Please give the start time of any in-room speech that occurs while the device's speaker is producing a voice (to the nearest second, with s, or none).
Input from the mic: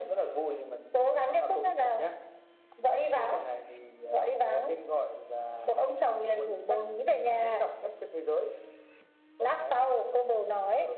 none